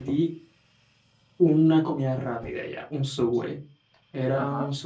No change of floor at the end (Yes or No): Yes